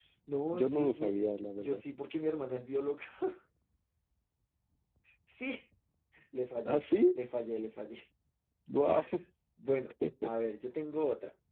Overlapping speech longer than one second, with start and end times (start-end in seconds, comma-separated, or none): 0.5-1.8